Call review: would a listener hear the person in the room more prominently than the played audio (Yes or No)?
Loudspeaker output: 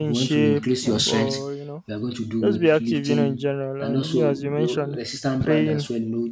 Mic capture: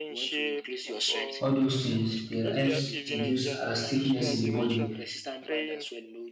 Yes